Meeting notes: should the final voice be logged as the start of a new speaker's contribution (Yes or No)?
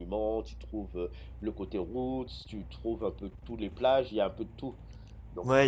Yes